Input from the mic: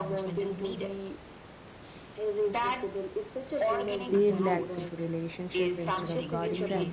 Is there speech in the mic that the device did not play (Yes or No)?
Yes